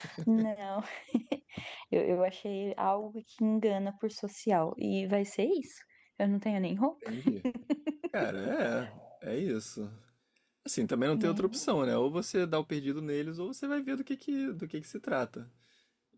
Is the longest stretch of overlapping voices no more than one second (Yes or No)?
Yes